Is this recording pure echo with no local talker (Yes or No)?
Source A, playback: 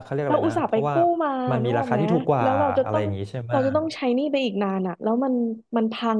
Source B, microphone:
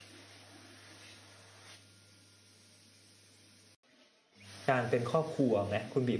No